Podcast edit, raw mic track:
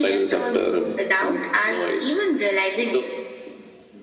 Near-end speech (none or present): none